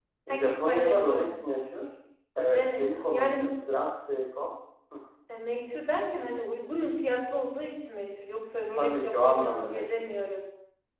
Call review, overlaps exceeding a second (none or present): present